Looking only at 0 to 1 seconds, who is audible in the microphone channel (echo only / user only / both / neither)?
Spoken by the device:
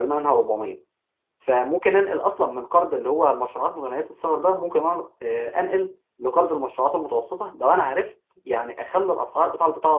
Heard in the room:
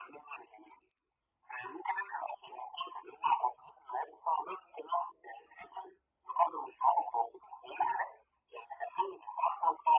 echo only